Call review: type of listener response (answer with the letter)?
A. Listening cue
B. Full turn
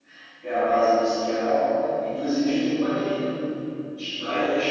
A